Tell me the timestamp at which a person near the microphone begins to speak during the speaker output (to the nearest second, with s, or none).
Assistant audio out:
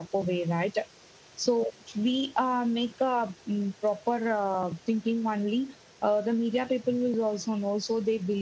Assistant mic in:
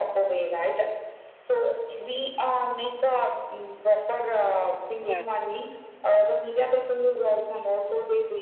5 s